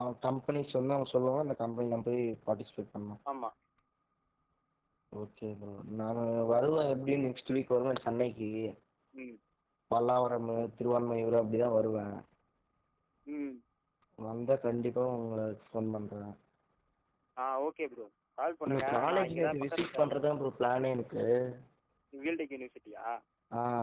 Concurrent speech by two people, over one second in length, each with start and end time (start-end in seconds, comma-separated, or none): 18.7-20.1